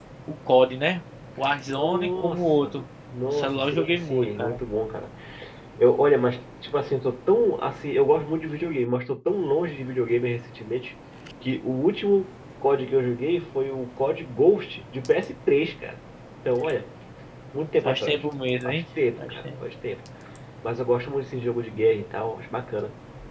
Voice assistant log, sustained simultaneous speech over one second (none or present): present